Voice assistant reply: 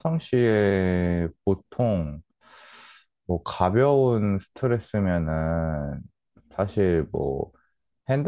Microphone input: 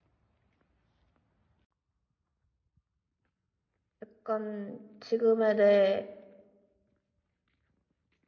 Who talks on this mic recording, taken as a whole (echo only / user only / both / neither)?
user only